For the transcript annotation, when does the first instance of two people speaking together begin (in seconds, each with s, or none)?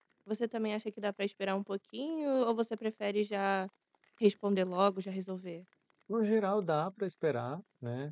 none